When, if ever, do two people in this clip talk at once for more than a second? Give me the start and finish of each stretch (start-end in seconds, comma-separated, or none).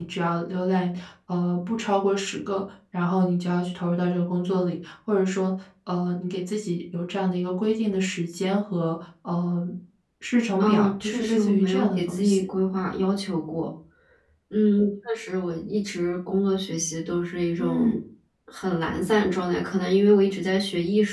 10.6-12.4